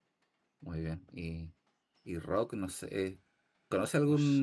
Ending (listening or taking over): listening